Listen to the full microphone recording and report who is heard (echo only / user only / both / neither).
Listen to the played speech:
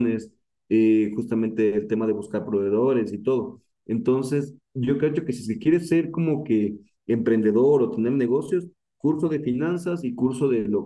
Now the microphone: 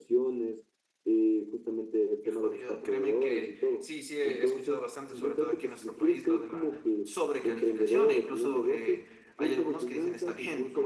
both